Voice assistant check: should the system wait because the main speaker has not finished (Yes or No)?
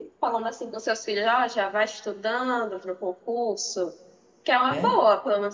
Yes